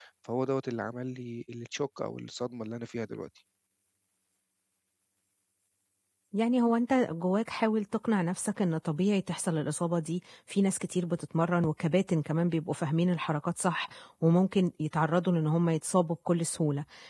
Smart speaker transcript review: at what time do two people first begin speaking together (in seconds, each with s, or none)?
none